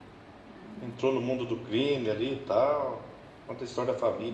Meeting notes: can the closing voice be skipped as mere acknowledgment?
Yes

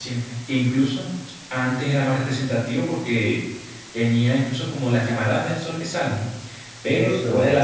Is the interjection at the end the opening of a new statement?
No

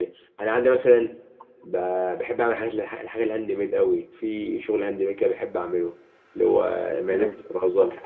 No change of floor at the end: Yes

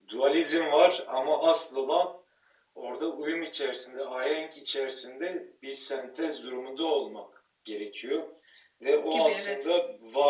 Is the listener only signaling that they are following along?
Yes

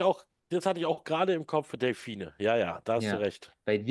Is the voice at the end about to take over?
Yes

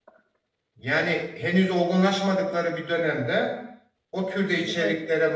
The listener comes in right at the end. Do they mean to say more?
No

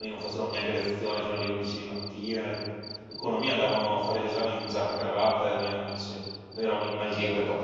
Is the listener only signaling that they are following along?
No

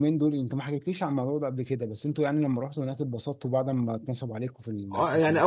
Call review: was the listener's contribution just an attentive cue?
No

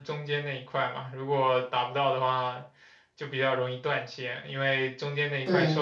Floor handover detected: No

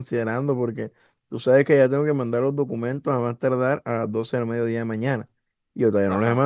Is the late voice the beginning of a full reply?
No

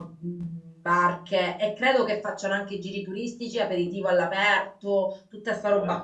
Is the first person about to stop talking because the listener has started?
No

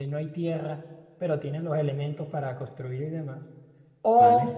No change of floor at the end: Yes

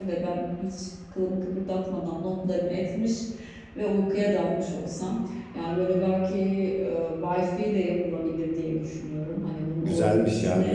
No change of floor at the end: No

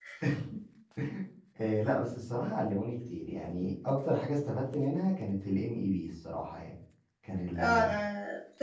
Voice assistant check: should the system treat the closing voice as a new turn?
Yes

